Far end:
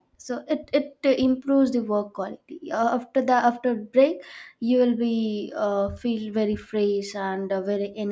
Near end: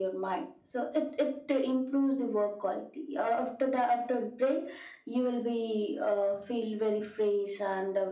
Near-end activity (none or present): none